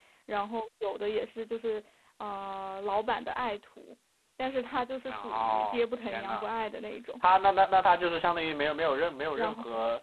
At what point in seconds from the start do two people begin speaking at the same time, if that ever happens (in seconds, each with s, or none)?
5.1 s